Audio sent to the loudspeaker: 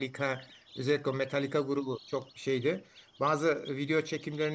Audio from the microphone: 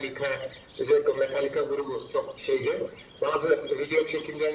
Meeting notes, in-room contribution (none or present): none